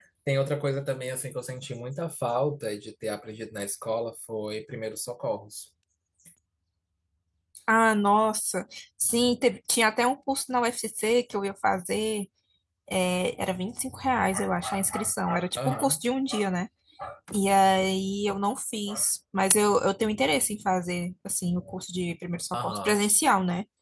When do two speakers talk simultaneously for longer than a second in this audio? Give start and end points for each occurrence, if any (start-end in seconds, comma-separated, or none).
none